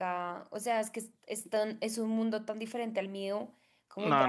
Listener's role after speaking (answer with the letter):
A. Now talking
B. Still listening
A